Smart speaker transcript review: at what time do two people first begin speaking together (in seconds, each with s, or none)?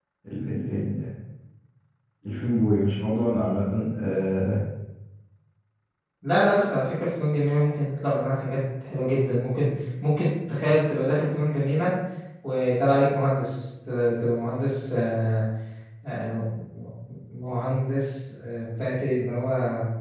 none